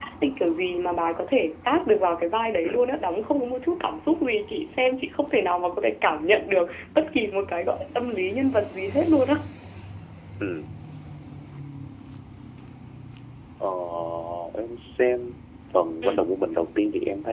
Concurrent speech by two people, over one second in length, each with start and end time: none

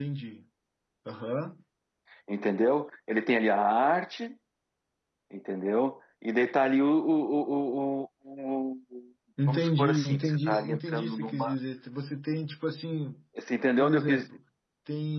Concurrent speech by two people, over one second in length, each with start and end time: 9.5-11.5

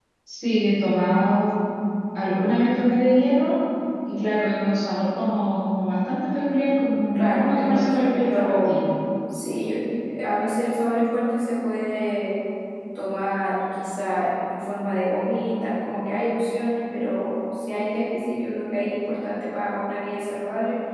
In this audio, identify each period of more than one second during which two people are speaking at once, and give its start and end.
7.2-8.8

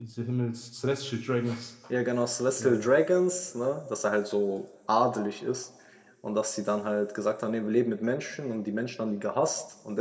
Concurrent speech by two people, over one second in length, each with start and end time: none

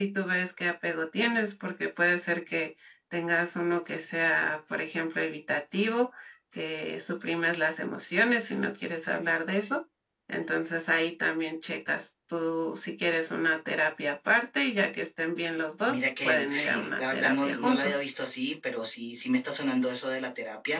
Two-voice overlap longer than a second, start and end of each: 15.9-18.0

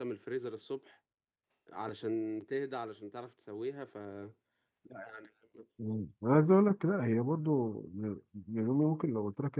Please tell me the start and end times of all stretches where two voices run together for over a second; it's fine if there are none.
none

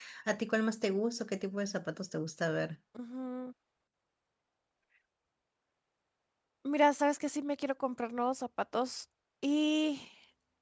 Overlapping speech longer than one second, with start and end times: none

